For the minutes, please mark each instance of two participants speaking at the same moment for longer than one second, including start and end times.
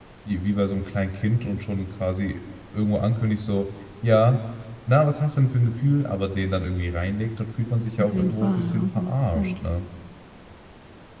8.0-9.5

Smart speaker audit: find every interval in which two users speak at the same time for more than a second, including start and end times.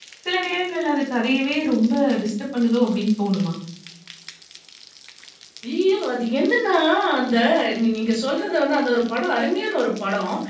none

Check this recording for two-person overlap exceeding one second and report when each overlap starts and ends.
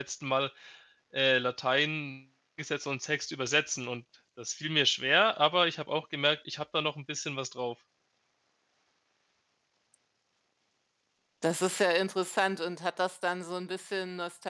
none

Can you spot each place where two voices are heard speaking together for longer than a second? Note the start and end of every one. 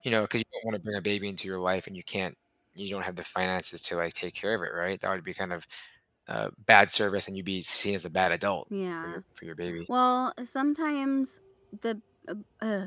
none

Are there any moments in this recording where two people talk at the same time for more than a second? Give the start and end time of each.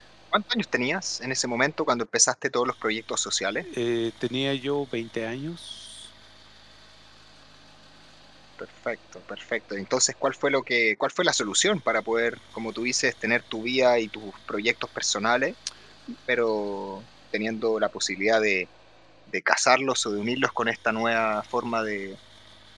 none

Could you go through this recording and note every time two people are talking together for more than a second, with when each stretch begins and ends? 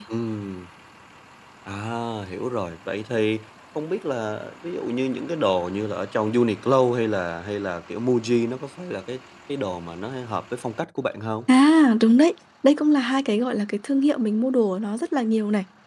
none

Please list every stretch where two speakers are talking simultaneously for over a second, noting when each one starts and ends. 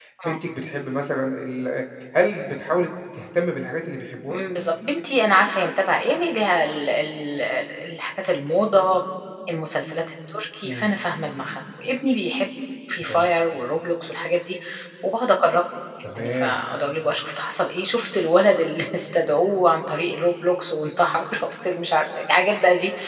none

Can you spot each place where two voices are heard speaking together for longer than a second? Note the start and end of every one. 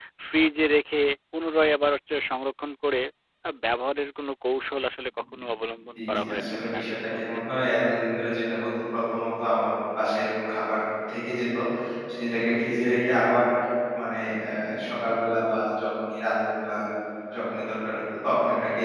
6.0-7.2

